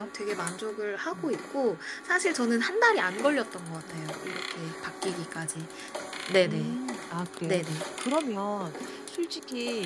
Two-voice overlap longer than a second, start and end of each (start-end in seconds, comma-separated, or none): none